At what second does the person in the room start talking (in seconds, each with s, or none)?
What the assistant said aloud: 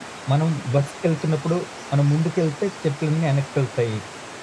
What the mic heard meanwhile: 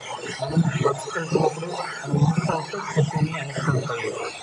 none